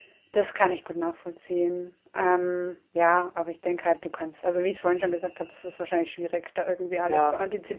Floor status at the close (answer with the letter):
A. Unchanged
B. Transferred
A